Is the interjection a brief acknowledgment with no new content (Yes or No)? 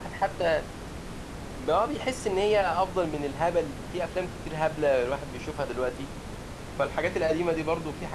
Yes